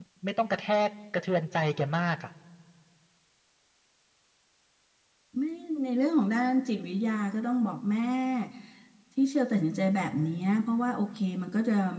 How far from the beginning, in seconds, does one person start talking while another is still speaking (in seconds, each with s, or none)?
none